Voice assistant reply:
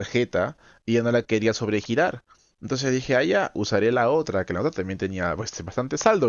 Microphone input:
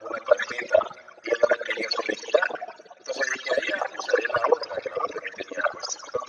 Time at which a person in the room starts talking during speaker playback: none

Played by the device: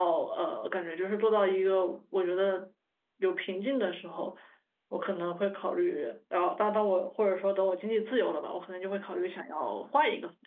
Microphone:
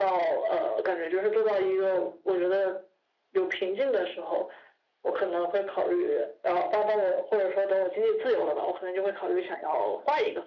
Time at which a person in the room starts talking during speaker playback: none

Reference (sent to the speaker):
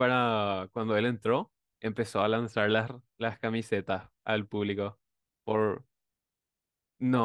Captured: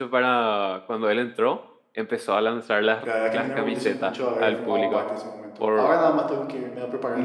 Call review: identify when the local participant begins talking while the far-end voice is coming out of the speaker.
3.0 s

